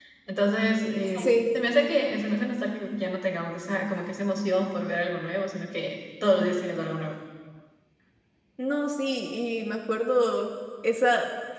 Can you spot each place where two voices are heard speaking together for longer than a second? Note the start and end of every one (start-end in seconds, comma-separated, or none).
none